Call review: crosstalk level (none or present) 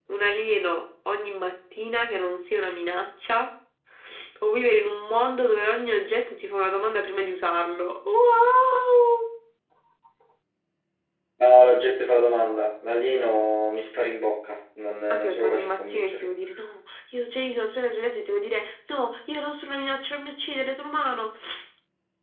present